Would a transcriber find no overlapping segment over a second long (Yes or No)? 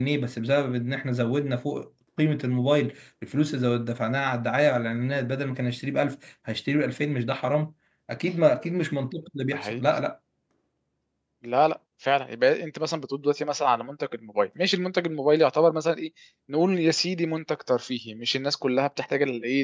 Yes